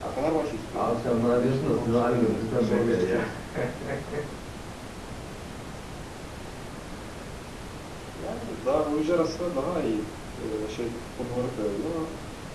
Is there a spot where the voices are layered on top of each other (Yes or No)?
Yes